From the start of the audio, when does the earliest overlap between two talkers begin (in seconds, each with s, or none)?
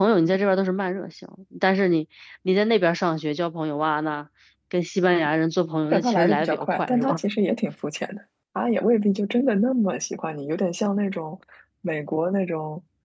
5.9 s